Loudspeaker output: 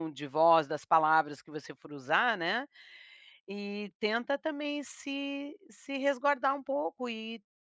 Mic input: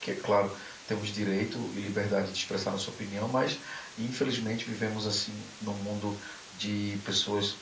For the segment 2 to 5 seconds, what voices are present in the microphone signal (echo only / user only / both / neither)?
user only